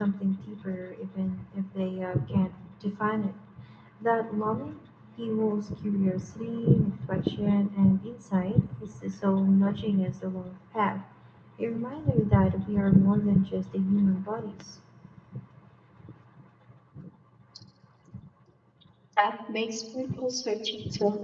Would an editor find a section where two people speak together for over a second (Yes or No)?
No